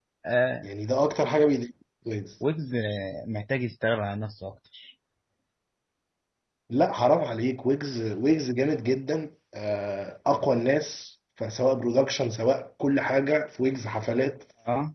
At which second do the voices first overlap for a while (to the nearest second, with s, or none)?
none